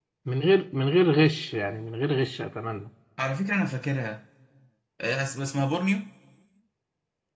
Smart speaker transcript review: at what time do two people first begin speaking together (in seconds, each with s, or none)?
none